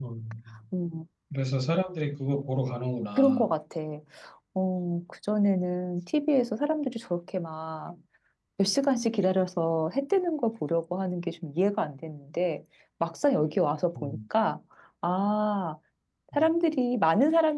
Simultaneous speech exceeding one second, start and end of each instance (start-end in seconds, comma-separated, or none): none